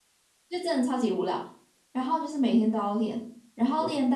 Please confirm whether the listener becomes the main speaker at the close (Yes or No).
No